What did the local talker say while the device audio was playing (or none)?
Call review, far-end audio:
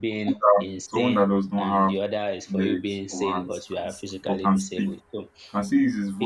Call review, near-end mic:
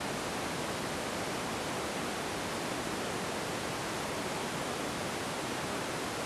none